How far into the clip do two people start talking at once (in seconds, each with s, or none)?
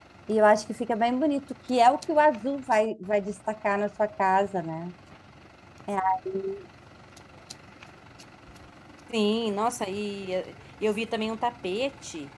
none